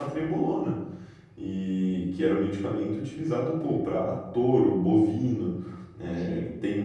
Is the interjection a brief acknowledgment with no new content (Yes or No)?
Yes